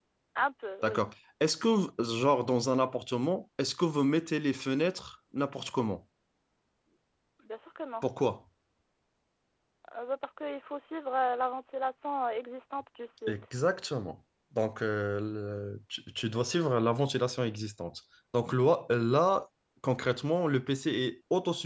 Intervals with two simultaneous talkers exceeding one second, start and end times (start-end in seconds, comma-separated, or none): none